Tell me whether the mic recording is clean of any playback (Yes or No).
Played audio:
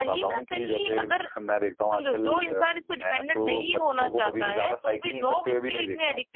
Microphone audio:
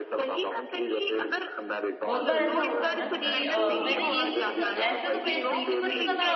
No